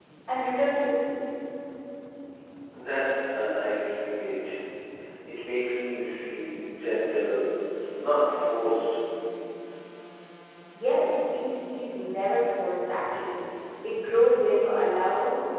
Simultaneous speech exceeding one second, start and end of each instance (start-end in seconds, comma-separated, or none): none